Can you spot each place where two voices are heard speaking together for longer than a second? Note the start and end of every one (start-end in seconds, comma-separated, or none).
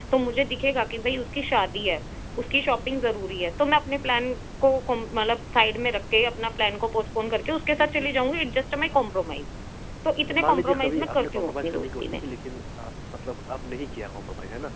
10.3-12.2